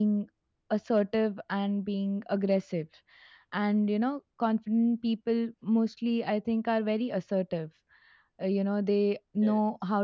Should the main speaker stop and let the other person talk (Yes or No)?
No